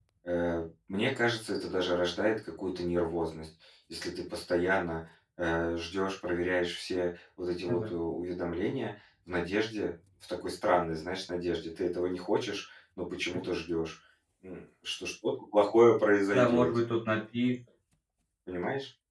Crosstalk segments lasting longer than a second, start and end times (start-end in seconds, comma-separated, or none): none